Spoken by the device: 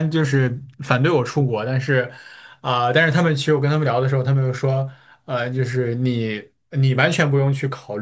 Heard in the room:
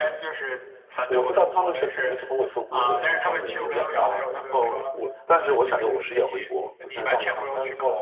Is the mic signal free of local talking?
No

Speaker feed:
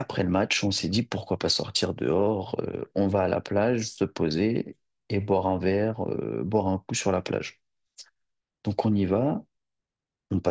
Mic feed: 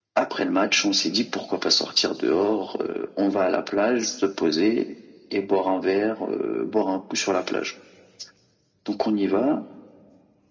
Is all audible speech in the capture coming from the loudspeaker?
Yes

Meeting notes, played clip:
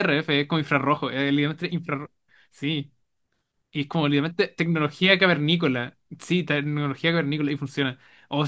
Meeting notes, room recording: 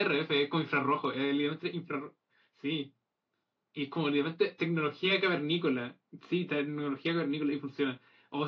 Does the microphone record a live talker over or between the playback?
No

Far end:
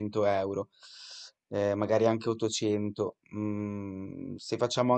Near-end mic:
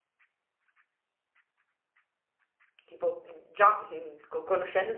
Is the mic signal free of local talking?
No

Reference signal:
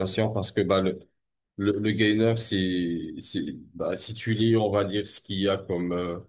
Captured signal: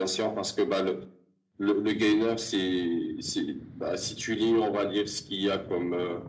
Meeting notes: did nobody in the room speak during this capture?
Yes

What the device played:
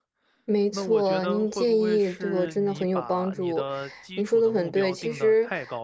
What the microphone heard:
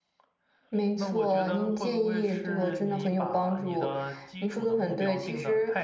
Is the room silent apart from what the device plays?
Yes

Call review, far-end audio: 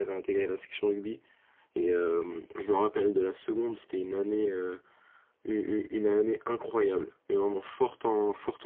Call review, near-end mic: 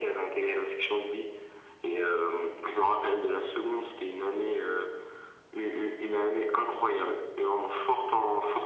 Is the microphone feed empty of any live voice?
Yes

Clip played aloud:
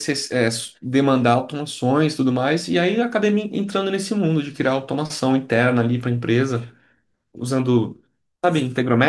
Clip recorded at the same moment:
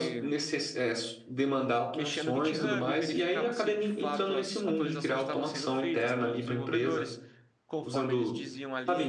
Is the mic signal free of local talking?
No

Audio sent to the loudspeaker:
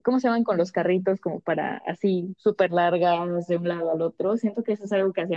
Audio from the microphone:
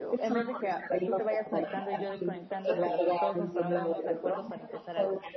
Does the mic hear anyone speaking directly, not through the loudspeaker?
Yes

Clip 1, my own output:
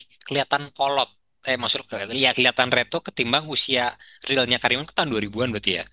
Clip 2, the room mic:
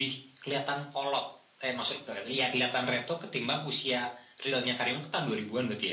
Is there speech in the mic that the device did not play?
No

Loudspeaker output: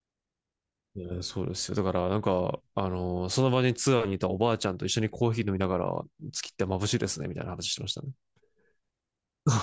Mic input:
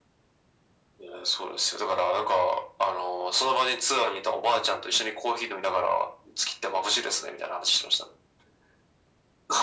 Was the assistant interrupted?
No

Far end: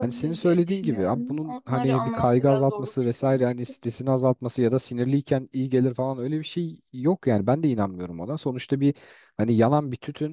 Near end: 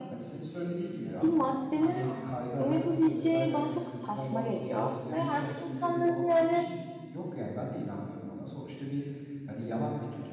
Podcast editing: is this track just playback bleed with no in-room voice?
No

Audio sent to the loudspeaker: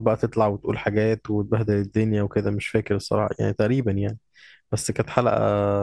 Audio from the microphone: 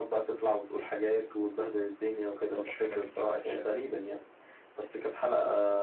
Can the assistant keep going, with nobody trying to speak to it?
No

